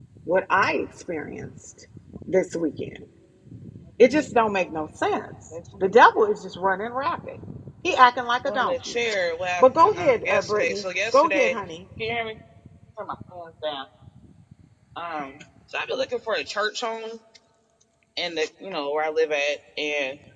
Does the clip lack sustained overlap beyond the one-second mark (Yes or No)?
No